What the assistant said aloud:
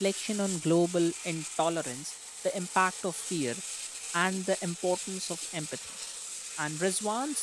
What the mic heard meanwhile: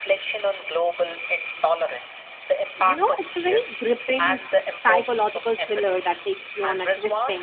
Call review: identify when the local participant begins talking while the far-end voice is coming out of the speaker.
2.8 s

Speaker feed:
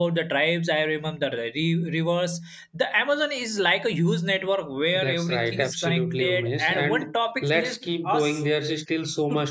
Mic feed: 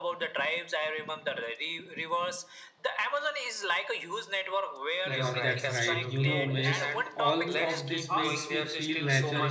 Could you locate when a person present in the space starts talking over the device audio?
5.0 s

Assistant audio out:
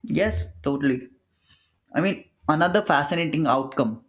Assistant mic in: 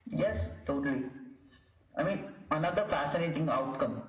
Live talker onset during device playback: none

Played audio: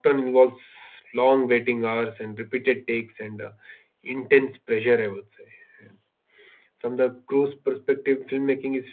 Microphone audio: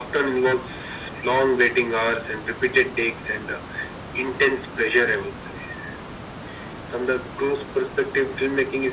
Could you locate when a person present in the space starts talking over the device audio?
none

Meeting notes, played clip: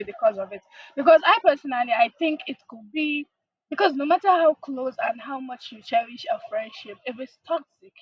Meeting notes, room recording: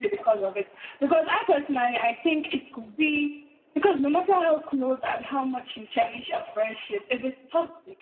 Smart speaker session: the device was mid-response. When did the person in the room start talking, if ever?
none

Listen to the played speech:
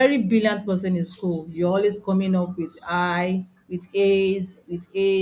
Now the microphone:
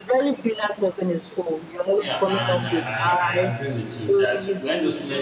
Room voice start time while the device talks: 1.9 s

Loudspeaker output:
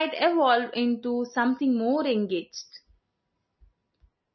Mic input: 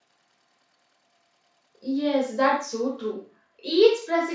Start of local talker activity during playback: 1.8 s

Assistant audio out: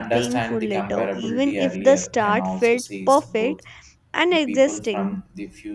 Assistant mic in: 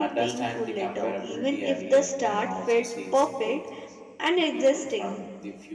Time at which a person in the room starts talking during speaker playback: none

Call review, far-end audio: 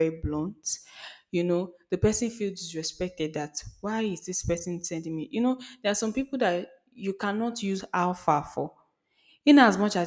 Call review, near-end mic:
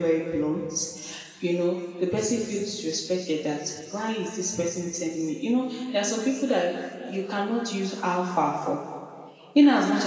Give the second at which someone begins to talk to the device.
none

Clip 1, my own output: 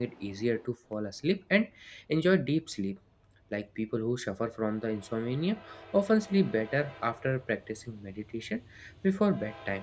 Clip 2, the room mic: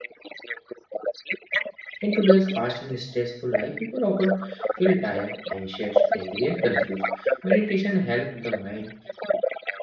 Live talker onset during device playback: 2.0 s

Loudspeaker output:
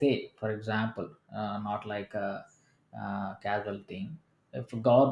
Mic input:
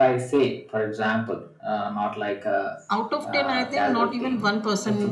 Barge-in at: 3.0 s

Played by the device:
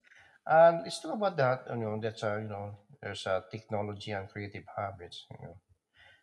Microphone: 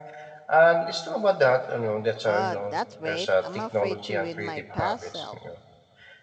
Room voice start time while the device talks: 2.2 s

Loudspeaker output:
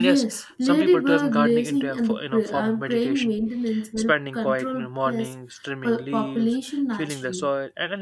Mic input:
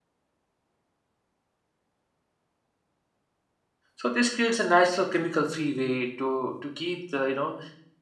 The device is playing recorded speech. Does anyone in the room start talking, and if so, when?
4.0 s

